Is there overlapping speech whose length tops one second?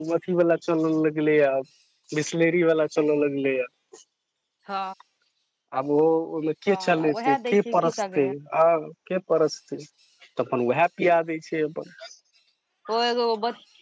Yes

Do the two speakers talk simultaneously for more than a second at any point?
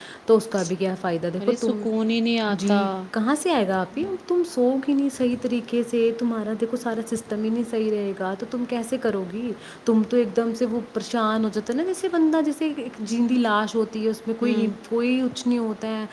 No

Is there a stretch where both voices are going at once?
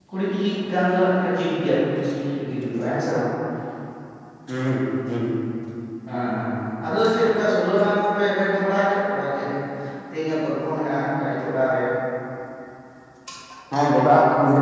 No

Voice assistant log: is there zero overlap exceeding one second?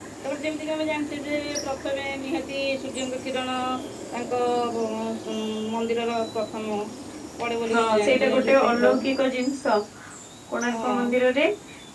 No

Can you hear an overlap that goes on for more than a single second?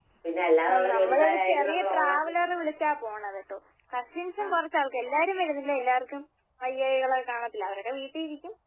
Yes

